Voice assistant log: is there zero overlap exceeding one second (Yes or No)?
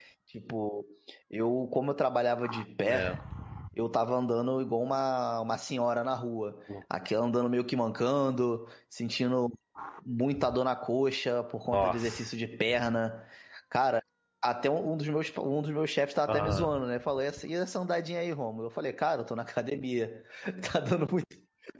Yes